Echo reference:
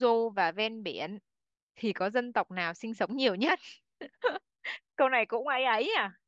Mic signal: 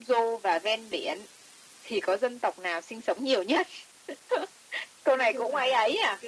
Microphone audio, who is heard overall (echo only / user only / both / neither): both